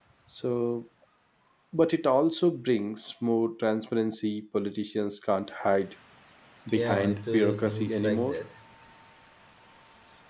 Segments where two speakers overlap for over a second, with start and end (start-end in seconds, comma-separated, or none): 6.8-8.3